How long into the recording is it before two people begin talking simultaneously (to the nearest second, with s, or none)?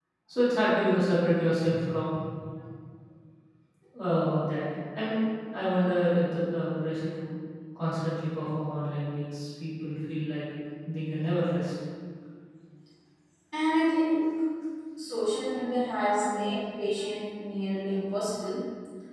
none